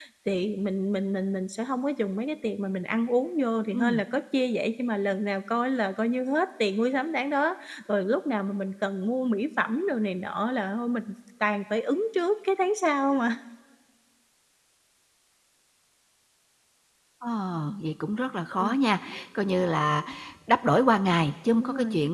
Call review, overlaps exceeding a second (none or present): none